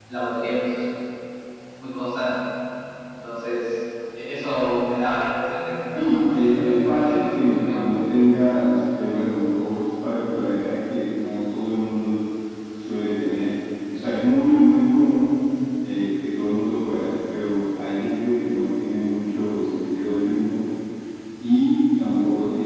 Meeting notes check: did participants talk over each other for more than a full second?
Yes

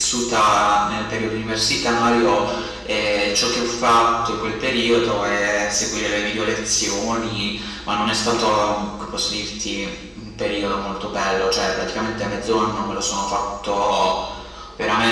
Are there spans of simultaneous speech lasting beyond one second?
No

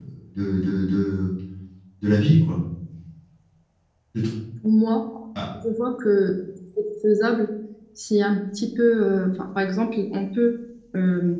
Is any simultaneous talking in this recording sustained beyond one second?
No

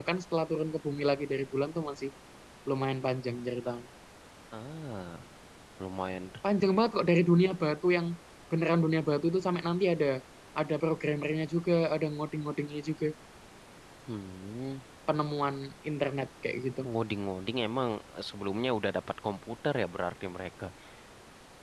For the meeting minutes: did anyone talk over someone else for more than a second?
No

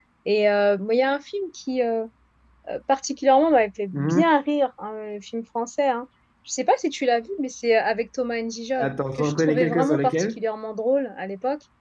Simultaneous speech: Yes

